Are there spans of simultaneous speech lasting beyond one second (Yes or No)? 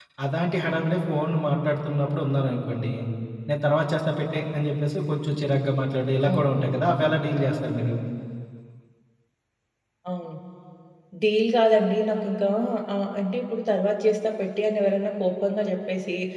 No